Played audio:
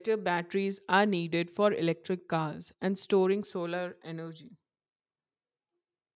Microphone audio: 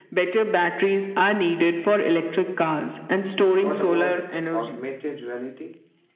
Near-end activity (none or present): present